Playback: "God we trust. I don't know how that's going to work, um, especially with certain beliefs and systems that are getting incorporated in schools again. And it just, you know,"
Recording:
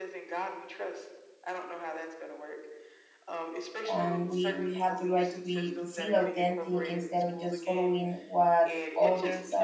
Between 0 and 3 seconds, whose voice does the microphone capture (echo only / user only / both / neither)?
echo only